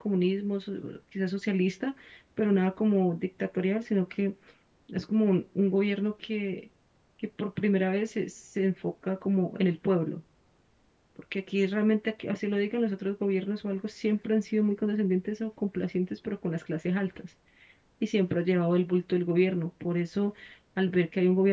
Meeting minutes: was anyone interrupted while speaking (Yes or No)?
No